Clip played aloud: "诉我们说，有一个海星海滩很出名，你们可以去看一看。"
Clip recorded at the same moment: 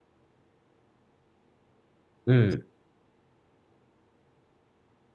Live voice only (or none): 嗯。